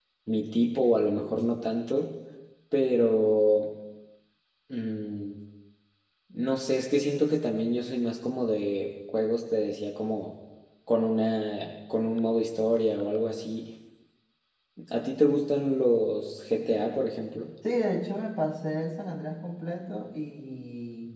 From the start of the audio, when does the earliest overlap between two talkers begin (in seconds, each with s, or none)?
none